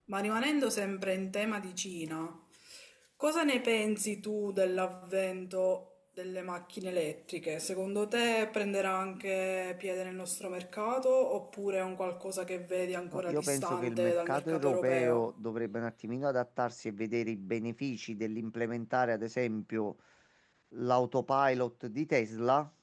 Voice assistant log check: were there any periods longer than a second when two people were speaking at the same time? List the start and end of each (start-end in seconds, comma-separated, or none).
13.1-15.3